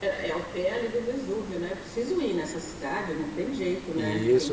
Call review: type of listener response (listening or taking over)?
taking over